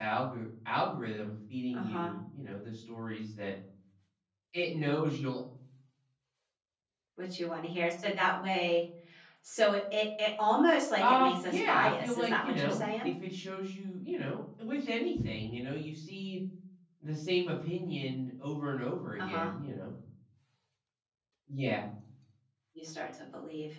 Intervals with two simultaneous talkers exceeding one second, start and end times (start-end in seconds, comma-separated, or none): 11.0-13.1